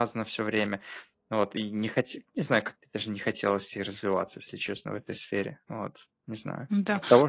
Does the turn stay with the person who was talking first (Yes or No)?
No